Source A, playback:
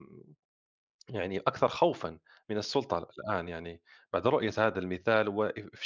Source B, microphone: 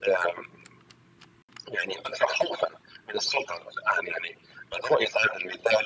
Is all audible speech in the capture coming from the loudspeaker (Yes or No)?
Yes